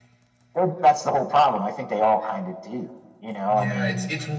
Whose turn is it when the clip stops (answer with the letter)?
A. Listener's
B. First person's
A